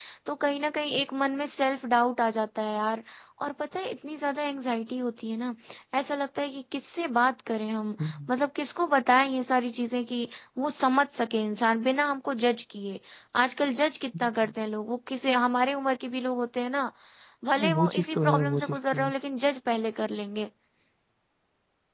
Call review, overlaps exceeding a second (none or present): present